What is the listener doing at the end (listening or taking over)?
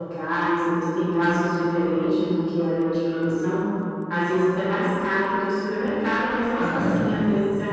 listening